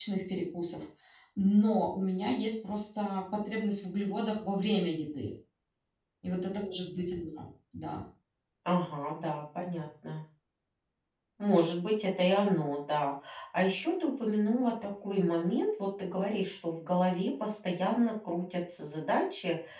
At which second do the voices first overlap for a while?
none

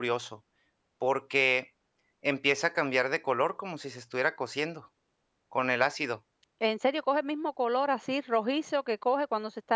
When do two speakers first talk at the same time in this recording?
none

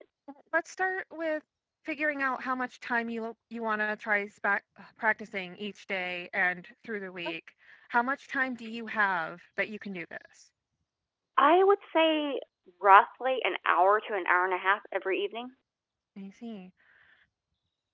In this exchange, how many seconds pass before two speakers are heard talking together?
none

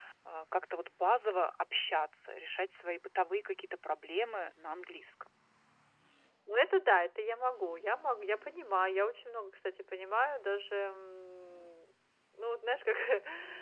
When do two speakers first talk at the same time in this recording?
none

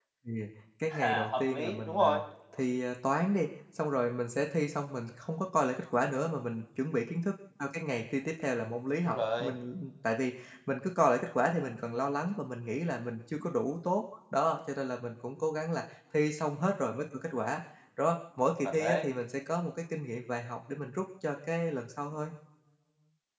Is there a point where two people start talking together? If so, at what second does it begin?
1.0 s

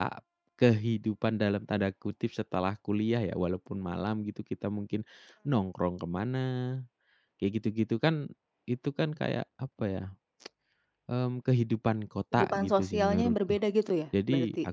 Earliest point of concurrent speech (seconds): 12.3 s

